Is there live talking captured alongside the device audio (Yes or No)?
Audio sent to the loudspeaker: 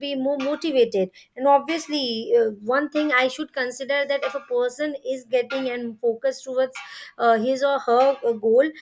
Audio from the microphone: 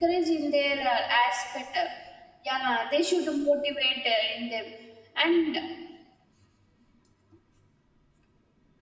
Yes